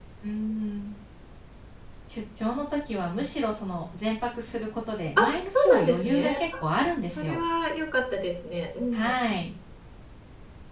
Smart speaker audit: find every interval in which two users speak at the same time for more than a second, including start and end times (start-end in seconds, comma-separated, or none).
5.2-6.4